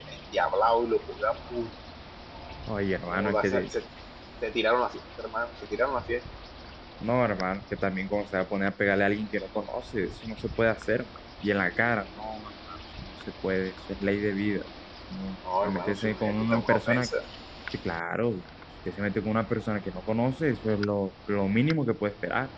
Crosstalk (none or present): present